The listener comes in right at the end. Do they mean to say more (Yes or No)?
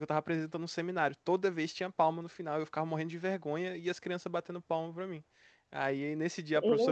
No